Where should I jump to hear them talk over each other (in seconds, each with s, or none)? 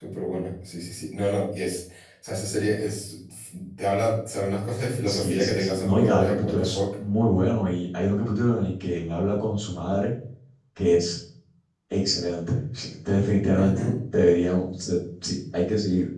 5.0 s